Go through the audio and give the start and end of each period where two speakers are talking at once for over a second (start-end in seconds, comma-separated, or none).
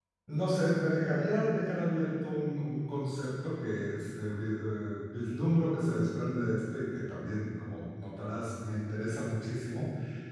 none